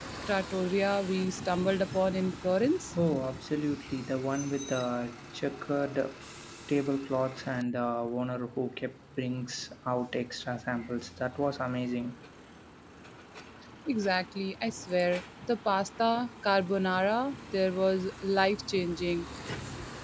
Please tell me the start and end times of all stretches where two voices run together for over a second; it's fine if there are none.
none

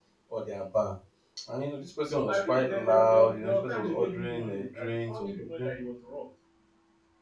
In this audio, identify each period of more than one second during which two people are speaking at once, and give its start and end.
2.1-5.7

